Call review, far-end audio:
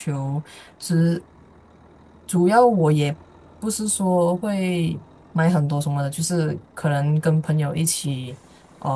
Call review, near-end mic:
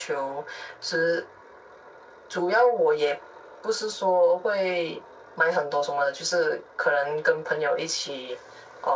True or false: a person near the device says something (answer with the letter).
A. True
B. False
B